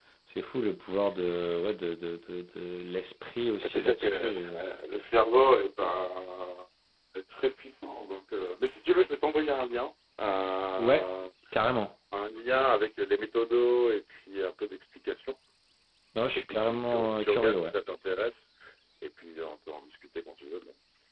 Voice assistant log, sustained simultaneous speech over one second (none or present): present